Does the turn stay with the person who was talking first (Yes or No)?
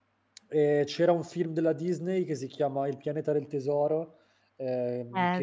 Yes